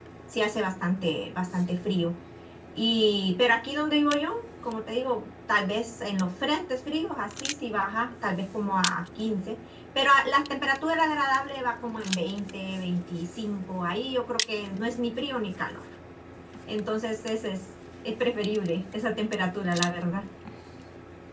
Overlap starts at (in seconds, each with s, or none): none